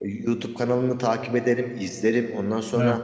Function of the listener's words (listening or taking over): listening